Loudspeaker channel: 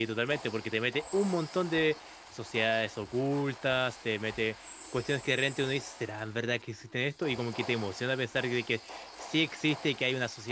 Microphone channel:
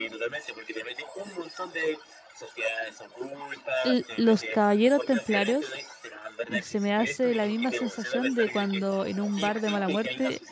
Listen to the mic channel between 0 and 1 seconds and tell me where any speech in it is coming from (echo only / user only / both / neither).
echo only